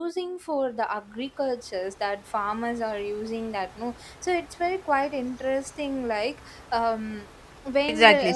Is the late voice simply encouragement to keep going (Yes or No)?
No